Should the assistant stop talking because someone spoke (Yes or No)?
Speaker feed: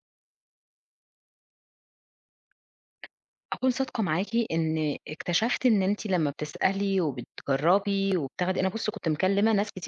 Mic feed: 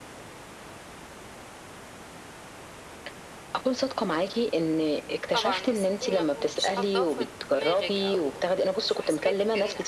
Yes